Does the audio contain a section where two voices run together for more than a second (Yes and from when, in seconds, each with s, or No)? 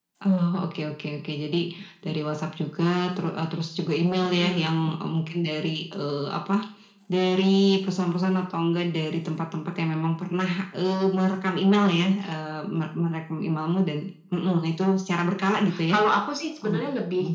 No